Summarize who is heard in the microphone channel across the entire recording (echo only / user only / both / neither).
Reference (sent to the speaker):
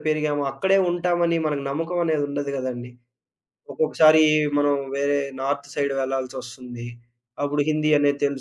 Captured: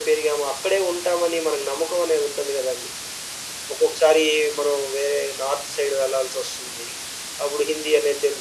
echo only